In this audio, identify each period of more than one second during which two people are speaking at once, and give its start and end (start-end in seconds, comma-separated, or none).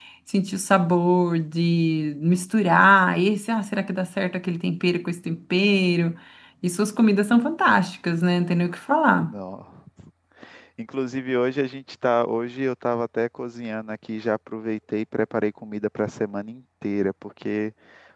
none